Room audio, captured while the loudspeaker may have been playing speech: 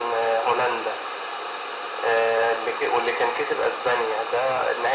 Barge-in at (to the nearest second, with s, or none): none